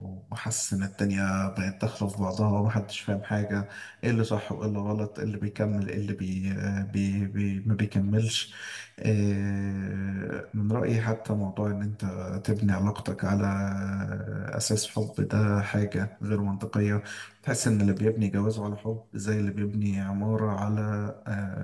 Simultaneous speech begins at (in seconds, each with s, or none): none